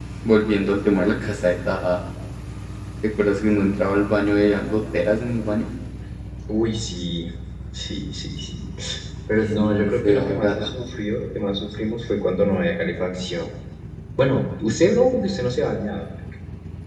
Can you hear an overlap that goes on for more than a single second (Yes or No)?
Yes